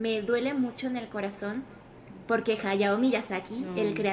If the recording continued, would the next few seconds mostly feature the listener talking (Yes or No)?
No